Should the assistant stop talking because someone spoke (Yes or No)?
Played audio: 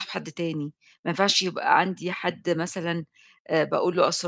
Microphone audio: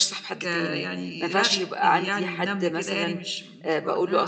Yes